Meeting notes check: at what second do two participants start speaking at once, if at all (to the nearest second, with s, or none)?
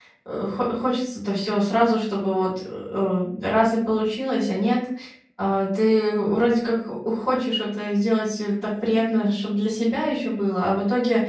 none